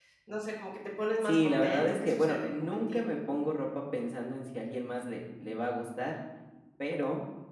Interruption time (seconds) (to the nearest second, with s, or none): 1 s